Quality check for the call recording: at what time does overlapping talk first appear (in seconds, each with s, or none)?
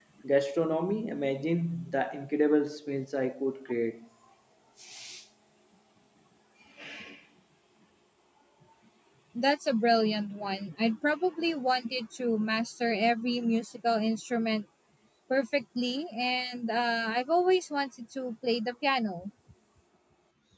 none